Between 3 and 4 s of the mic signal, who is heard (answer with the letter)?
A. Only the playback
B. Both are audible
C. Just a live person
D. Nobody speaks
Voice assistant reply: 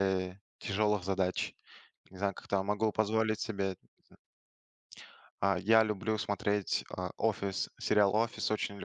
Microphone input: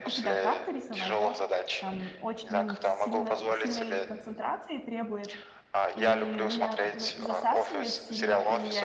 B